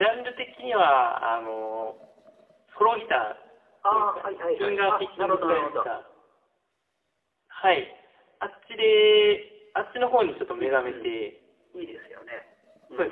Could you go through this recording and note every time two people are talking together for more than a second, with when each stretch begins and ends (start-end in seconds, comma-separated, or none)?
3.9-5.9